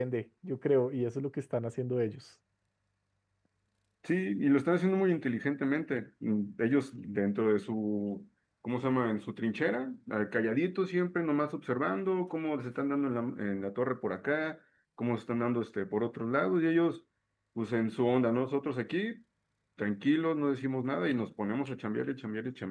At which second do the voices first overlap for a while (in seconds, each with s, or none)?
none